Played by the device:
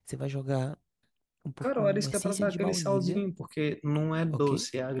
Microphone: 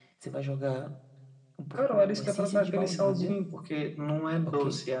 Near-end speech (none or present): none